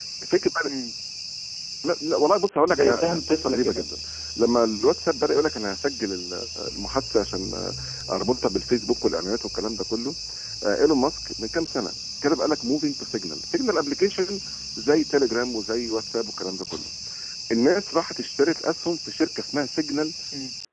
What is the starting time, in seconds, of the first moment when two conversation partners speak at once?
2.7 s

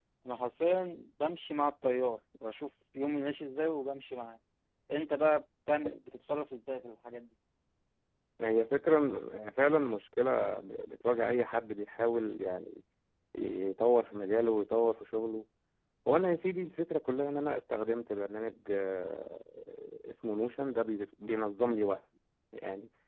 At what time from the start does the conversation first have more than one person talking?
none

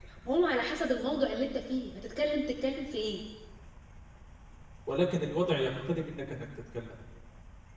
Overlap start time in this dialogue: none

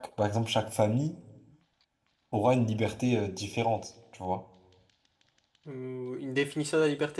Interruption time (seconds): none

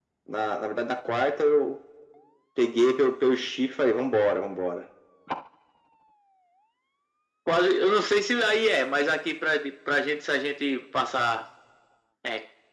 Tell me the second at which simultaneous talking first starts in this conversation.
none

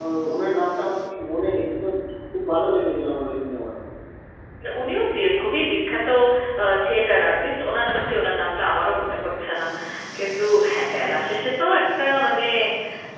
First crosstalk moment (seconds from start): none

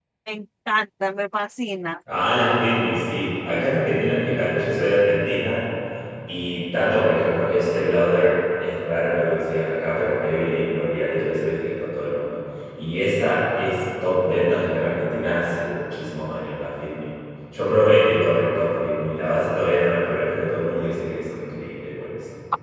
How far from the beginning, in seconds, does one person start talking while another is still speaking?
none

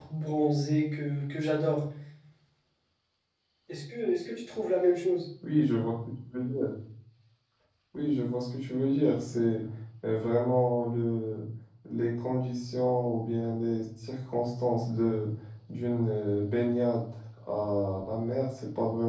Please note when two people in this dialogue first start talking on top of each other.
none

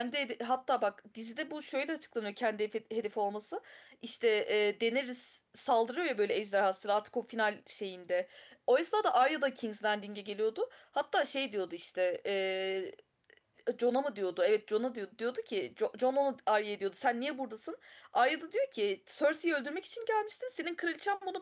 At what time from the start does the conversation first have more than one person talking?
none

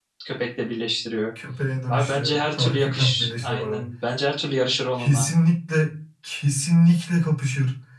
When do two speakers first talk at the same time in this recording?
1.9 s

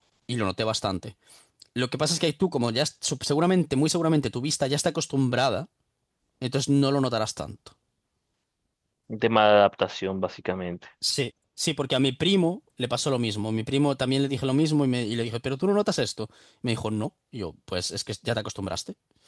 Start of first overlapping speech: none

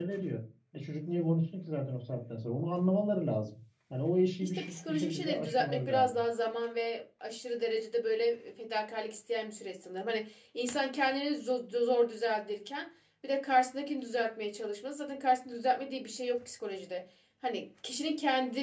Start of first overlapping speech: 4.4 s

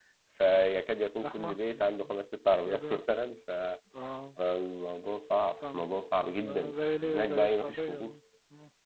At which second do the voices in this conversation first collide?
1.2 s

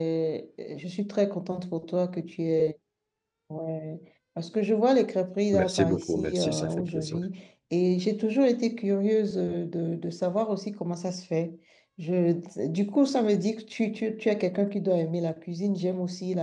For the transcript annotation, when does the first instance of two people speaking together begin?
5.5 s

